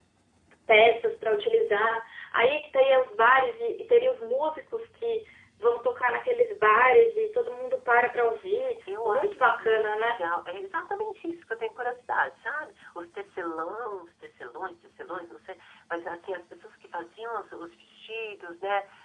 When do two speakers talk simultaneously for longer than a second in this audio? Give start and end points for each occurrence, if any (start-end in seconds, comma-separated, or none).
9.0-10.3